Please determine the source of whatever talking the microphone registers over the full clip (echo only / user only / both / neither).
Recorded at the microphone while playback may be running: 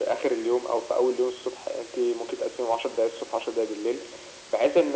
echo only